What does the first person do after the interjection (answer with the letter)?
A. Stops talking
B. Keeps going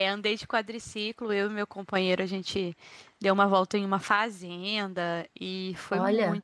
B